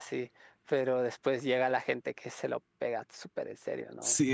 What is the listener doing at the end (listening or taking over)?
taking over